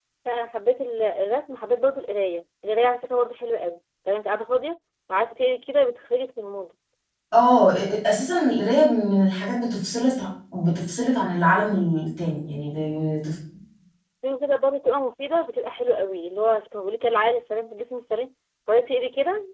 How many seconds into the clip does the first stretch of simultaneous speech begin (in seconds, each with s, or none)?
none